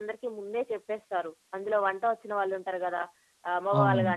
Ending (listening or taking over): listening